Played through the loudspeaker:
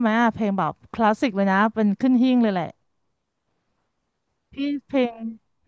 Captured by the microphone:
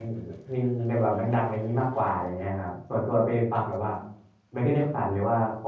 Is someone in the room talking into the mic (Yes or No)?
Yes